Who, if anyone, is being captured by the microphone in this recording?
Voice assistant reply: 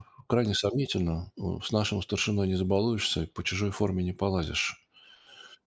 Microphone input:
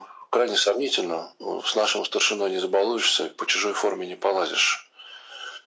echo only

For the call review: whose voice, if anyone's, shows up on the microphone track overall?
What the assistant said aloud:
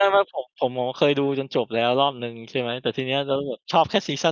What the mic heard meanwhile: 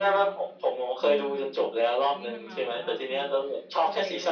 both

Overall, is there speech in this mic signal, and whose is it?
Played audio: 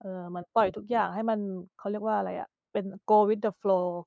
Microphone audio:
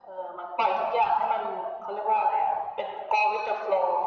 echo only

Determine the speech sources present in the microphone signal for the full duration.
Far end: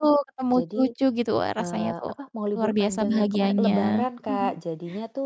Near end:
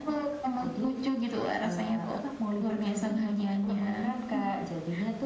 echo only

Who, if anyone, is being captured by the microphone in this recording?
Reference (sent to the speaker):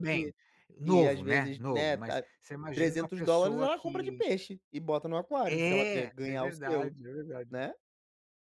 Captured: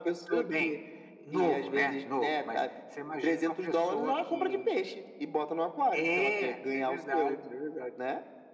echo only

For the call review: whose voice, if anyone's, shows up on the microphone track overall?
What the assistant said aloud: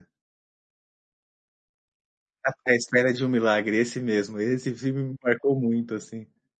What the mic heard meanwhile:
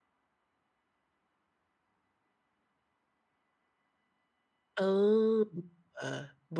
user only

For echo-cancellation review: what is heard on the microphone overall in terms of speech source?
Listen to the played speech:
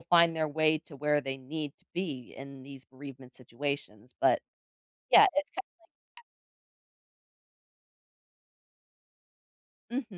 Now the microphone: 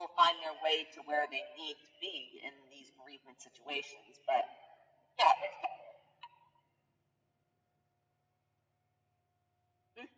echo only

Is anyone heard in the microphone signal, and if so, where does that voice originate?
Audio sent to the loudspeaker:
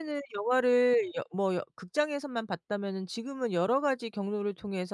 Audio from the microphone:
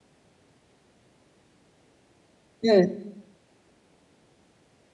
user only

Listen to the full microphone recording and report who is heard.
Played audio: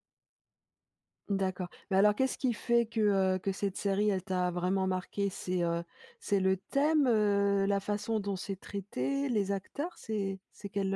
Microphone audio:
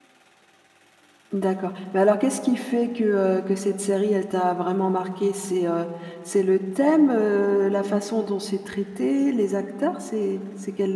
echo only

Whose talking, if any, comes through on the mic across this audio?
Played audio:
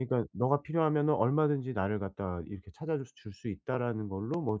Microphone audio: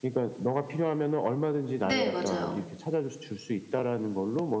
both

